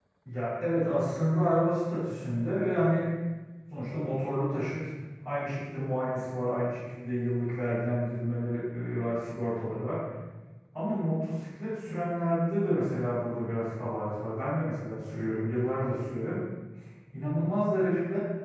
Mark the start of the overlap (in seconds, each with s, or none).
none